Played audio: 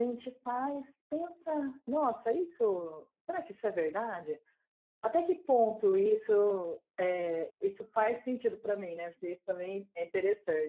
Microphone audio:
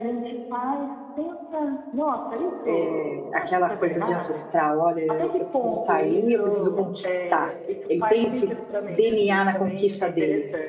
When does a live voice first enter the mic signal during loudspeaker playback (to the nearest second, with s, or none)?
3 s